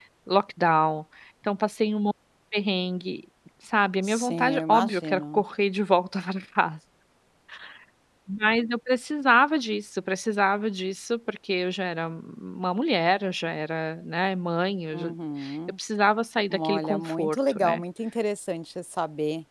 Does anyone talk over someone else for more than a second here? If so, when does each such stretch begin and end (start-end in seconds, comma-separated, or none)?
4.0-5.4, 16.5-17.8